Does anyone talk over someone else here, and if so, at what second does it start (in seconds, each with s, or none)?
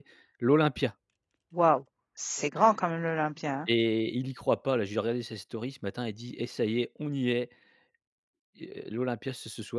none